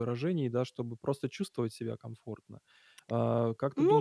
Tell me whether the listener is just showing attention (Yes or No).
No